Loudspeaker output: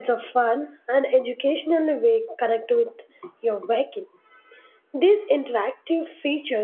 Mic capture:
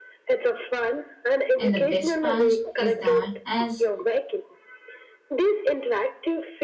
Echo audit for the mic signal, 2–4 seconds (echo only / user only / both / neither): both